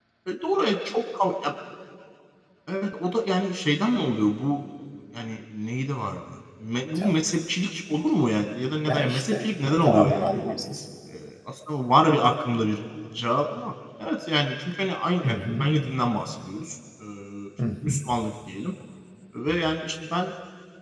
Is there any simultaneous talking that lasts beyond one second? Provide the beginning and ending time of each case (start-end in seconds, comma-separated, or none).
8.8-10.5